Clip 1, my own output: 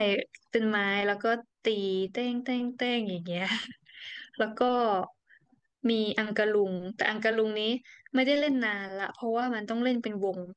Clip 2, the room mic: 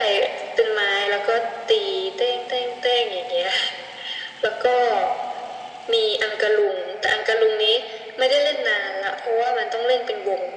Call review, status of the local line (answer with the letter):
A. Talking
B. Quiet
B